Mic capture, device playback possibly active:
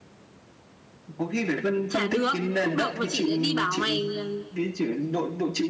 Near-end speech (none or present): present